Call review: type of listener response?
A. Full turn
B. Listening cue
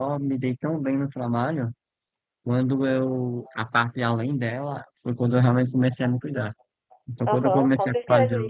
A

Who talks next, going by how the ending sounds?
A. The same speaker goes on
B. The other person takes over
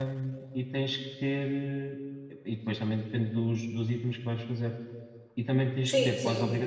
A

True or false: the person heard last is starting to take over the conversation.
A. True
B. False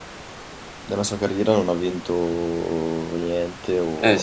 A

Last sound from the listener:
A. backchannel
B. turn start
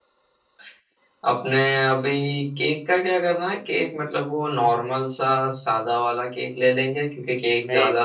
A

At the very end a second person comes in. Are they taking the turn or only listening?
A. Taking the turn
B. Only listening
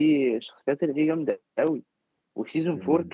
B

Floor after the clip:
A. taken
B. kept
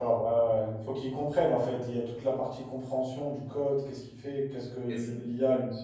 B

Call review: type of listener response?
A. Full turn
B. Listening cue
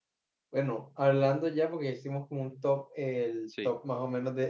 B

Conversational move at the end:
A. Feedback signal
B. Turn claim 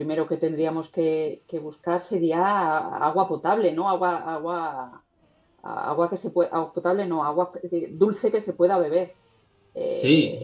B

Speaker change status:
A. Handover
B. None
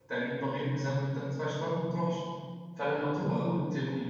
B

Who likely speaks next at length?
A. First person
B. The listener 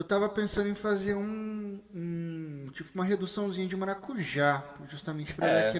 A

